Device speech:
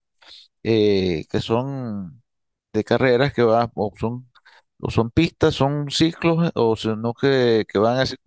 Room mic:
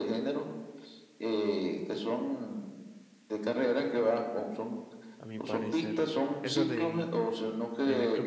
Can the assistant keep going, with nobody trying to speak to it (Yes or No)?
No